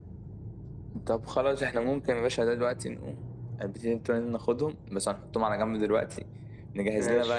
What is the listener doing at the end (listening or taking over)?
listening